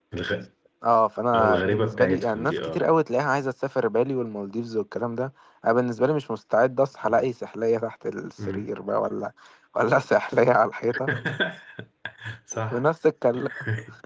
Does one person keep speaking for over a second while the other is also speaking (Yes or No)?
Yes